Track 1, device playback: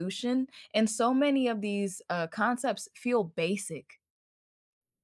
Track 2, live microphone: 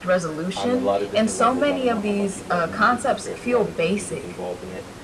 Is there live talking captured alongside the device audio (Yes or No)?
Yes